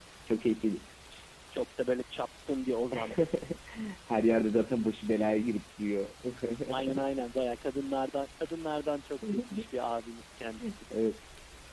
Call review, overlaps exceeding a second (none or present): none